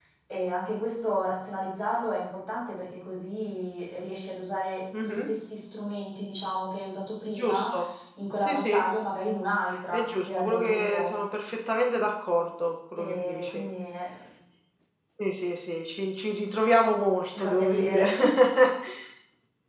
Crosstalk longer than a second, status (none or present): present